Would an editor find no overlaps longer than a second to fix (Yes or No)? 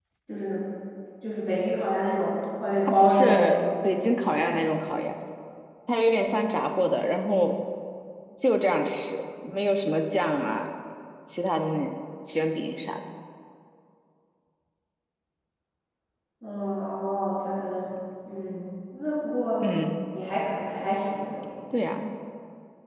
No